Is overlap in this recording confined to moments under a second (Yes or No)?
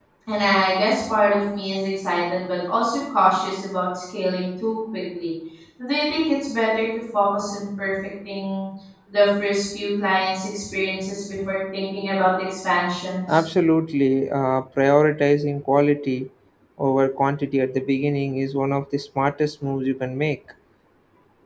Yes